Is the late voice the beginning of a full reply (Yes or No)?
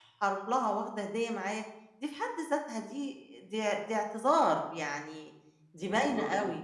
Yes